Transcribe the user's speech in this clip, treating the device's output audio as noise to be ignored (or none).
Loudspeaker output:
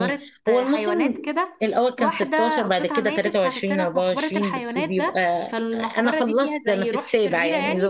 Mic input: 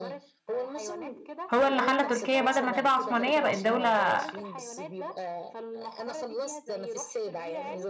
هو اللي خلى تركيا بدل ما تبقى عثمانيه بقت دوله